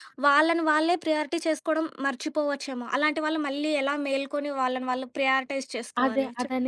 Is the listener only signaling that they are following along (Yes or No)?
No